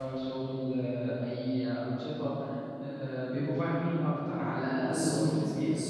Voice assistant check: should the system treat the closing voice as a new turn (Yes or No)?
Yes